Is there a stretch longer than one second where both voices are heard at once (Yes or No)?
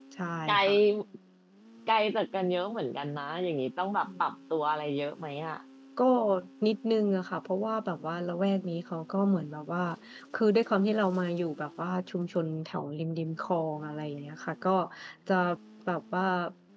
No